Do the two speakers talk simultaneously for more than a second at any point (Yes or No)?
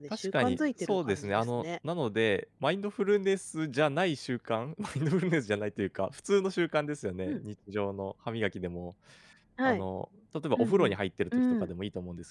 Yes